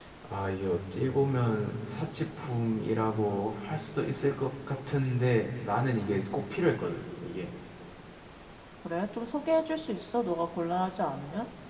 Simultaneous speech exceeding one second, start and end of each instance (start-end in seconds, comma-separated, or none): none